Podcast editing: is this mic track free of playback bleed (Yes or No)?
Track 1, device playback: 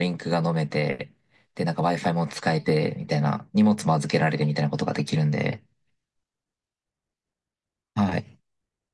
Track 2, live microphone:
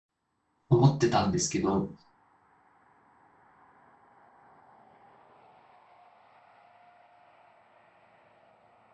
Yes